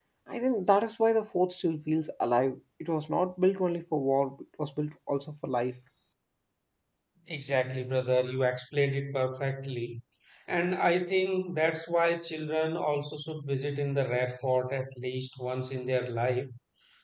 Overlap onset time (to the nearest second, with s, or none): none